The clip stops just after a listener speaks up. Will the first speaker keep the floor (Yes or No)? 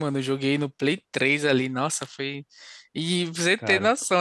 Yes